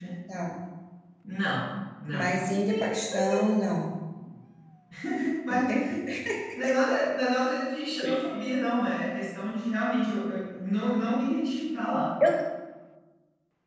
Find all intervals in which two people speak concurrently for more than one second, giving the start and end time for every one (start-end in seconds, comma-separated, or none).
none